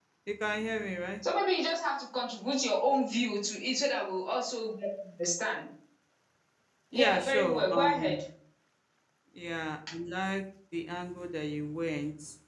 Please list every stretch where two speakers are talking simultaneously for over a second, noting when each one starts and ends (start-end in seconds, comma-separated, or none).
6.9-8.2